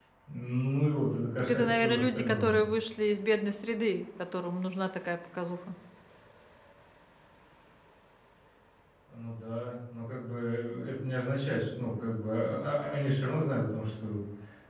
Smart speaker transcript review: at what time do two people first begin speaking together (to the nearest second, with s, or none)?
1 s